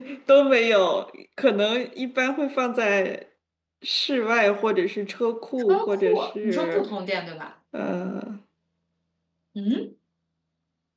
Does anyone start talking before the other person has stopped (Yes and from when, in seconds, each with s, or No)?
Yes, from 5.6 s